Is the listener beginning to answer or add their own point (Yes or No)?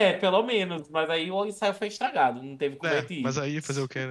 Yes